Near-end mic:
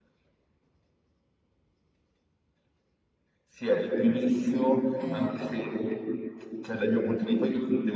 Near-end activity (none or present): present